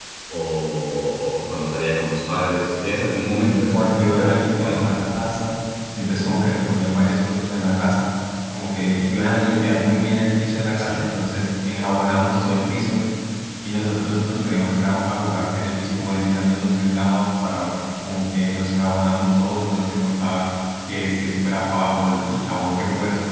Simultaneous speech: Yes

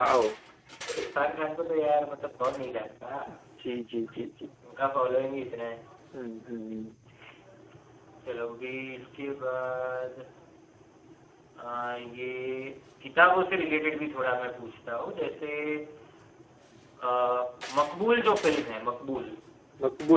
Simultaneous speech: No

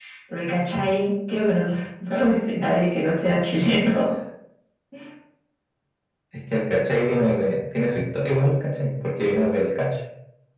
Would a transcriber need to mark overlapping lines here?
No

